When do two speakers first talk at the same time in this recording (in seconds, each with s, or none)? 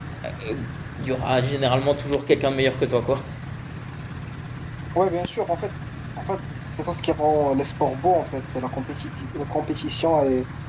none